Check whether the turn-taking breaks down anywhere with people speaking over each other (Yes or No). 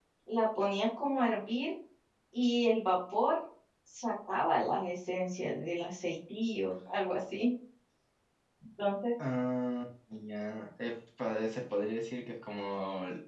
No